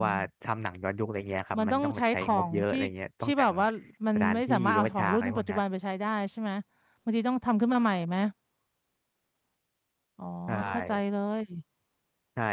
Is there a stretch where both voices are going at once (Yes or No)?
Yes